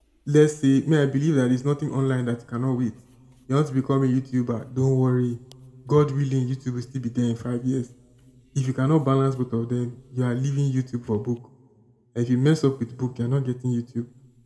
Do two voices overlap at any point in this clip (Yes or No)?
No